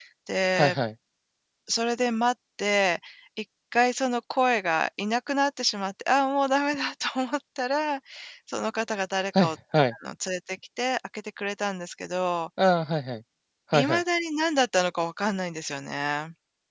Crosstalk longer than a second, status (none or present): none